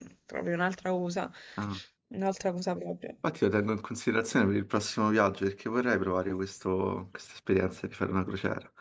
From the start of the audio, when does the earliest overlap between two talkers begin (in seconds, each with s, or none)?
none